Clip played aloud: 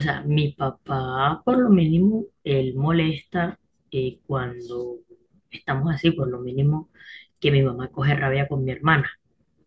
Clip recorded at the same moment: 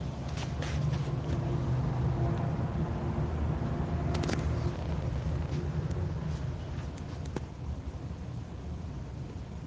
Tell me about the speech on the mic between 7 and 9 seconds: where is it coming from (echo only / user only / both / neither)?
neither